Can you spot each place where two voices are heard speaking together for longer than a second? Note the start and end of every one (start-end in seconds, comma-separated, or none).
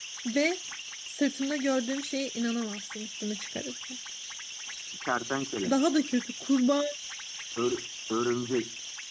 none